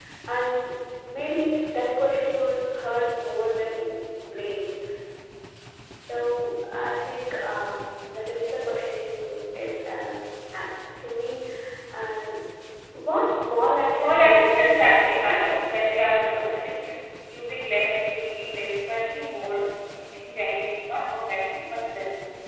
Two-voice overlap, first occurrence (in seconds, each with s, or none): 14.0 s